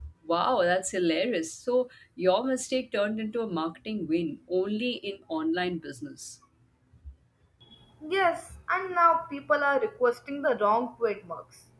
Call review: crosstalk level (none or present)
none